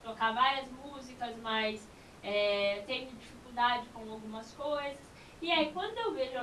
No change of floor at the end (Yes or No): Yes